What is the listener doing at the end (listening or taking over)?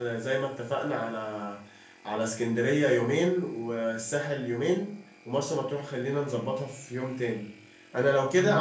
listening